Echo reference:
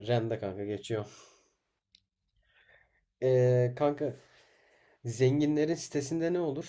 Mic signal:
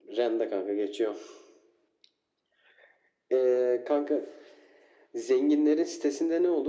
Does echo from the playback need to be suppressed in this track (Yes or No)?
Yes